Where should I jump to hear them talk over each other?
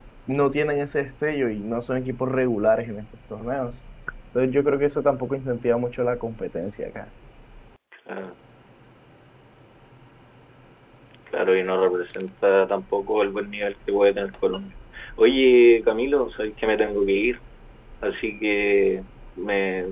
none

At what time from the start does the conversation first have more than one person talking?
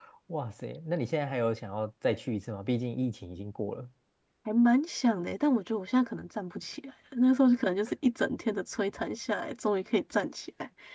none

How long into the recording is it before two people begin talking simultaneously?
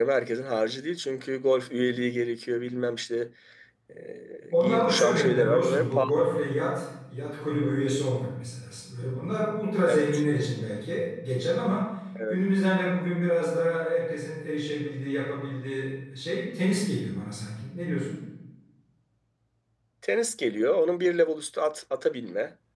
4.6 s

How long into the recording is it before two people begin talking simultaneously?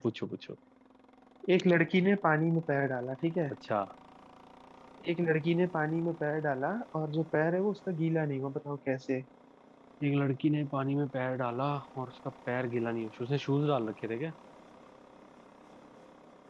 none

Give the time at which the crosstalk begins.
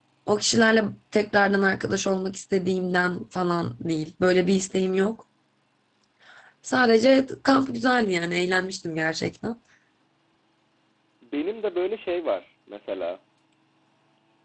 none

